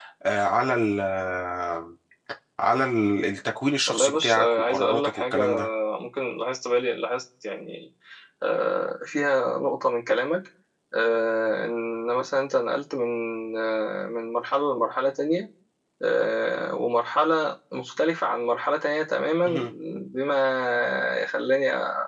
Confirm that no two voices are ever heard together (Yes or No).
No